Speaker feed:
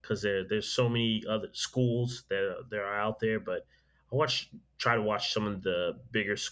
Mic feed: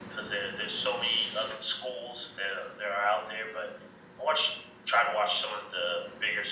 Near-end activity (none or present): none